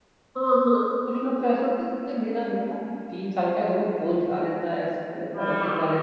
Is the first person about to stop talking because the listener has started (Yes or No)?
No